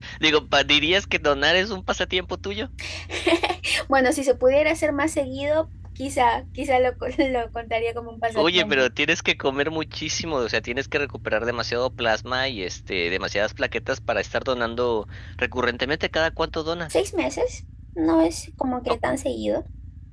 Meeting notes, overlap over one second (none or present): none